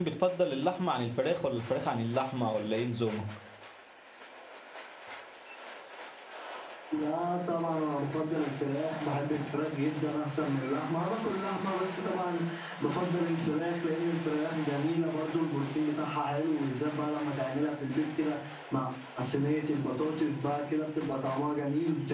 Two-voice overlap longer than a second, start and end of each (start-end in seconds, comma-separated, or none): none